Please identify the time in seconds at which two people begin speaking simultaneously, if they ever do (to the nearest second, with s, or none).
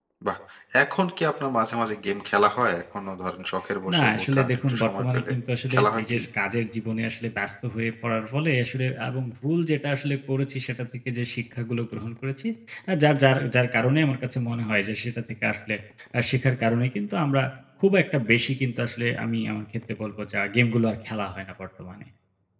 4 s